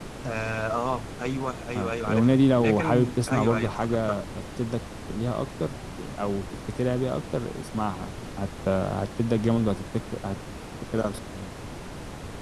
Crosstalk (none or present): present